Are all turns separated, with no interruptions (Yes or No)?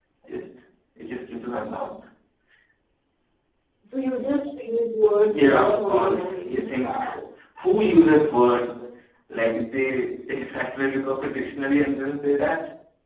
No